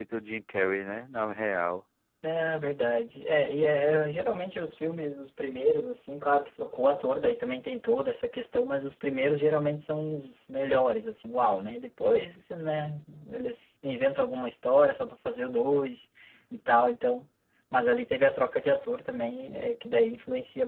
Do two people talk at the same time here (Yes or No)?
No